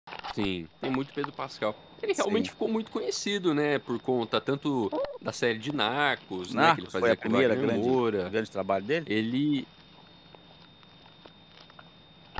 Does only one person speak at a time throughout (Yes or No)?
No